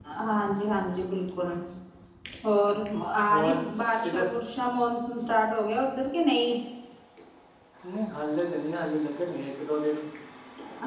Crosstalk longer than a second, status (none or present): none